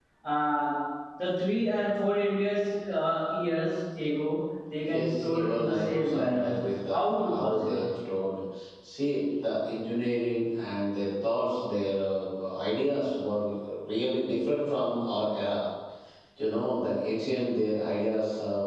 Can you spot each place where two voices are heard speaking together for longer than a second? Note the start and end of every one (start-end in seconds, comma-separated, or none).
4.9-7.8